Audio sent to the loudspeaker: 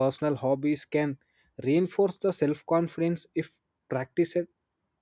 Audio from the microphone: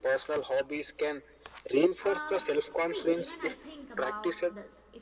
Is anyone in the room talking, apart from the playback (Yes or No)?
Yes